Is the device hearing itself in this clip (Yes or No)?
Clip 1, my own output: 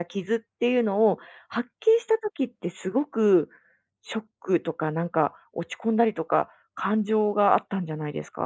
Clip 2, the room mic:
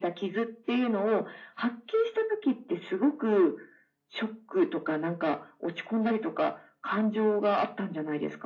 Yes